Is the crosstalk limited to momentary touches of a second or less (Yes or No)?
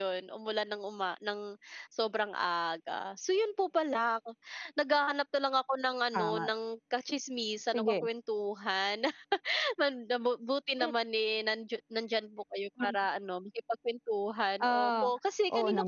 Yes